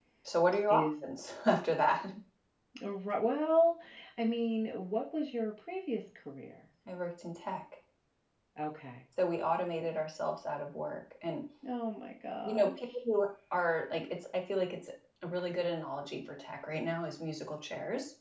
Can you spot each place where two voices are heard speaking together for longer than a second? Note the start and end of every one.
none

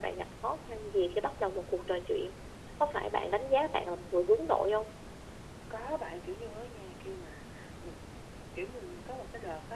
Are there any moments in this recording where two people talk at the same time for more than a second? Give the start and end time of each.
none

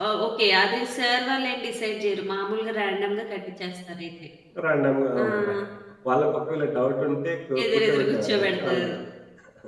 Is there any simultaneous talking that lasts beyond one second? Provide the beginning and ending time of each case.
7.6-8.9

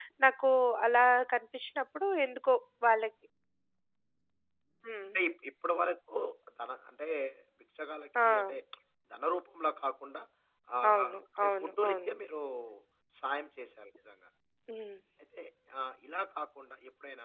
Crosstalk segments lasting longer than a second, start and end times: 10.9-12.1

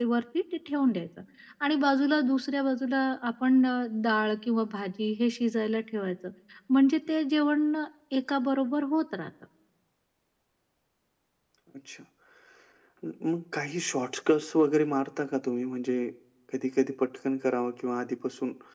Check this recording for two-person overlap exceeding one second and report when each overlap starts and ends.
none

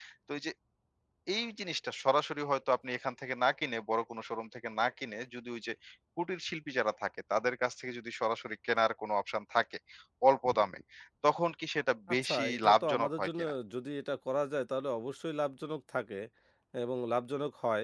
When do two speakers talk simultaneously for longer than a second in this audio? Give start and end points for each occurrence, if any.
12.2-13.5

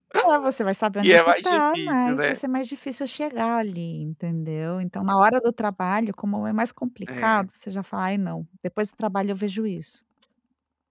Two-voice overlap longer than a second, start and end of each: 1.0-2.4

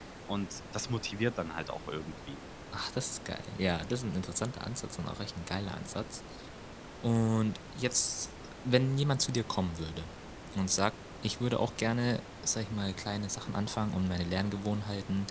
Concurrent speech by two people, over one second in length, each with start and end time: none

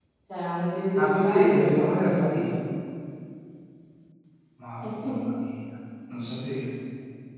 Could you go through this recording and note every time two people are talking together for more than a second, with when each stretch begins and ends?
0.9-2.3

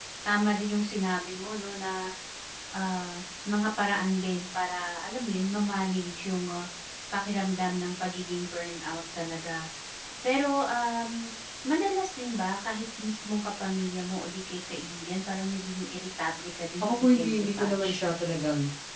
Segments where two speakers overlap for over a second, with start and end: 16.8-18.1

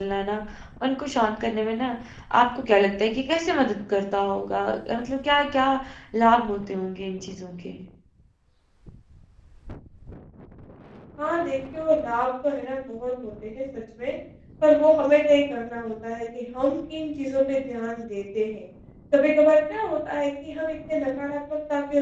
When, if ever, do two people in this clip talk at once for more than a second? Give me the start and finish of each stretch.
none

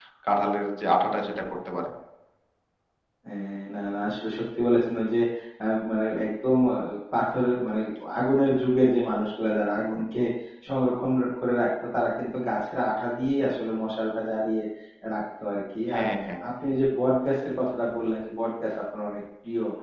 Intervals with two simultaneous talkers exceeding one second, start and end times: none

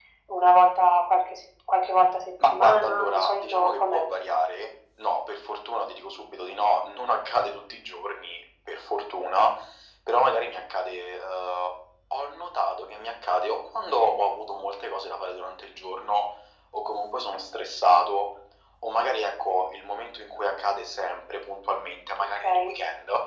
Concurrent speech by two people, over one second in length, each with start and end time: 2.5-4.0

